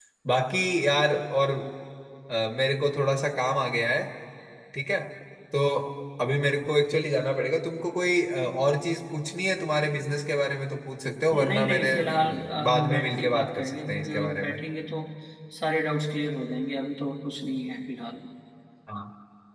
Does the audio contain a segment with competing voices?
Yes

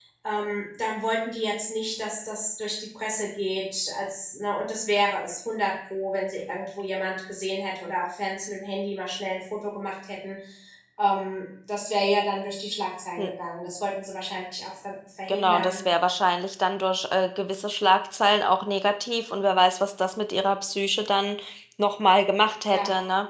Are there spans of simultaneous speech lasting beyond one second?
No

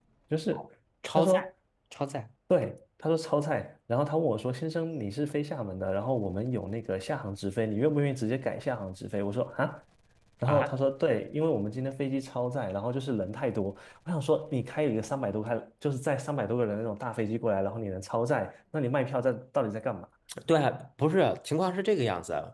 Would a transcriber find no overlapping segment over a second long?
Yes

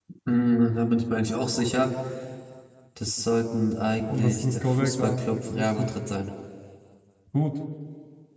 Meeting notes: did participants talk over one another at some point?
Yes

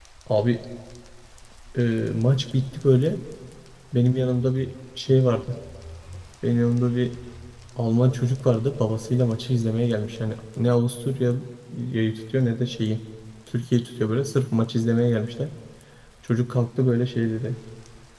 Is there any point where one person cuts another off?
No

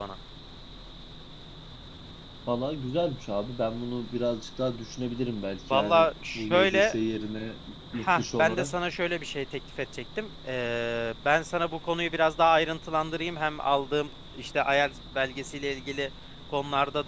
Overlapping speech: Yes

